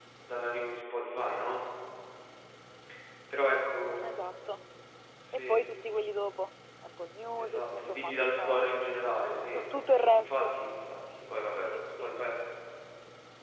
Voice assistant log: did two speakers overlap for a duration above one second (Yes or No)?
Yes